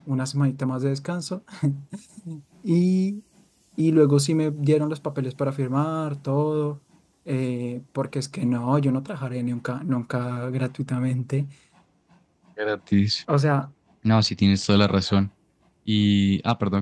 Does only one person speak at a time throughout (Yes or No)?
Yes